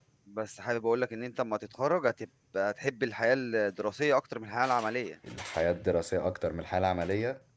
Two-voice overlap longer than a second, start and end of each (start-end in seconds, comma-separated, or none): none